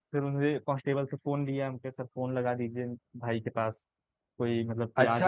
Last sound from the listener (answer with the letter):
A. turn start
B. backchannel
A